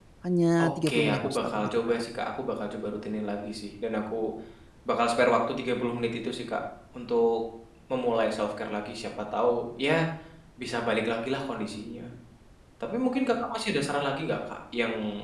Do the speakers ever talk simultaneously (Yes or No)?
Yes